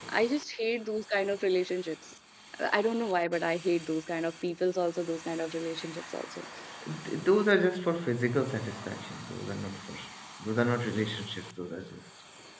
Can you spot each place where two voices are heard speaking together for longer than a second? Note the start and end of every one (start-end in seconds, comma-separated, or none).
none